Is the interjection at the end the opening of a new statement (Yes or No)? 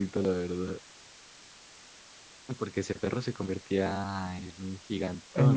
Yes